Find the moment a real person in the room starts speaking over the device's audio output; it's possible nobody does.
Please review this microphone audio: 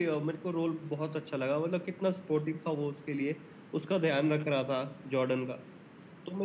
none

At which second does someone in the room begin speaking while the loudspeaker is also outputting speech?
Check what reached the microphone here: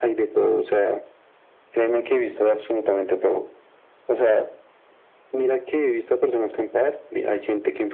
none

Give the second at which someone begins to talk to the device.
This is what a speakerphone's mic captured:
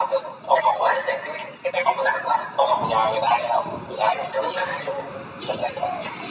none

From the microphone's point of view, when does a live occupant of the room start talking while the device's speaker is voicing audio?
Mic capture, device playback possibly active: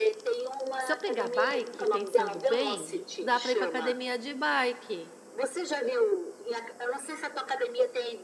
0.8 s

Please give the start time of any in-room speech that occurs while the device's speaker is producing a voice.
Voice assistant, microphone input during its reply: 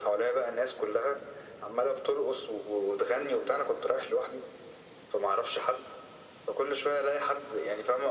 none

